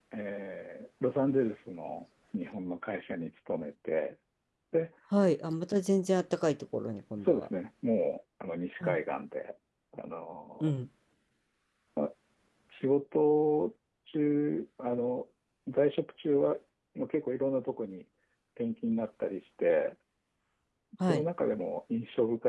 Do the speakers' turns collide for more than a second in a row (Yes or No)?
No